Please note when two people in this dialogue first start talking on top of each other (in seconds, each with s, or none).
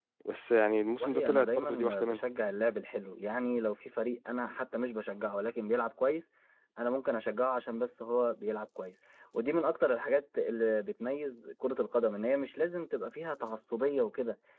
1.0 s